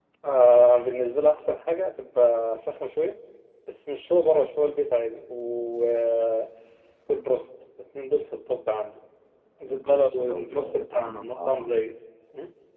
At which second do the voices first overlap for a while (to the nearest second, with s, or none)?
10 s